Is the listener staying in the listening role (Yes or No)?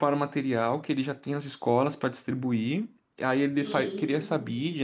Yes